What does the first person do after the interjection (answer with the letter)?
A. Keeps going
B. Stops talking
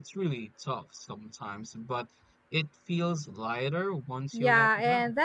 B